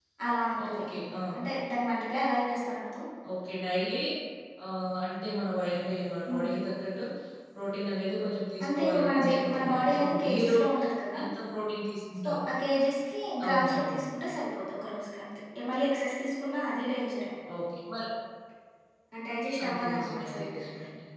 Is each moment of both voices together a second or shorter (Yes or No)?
No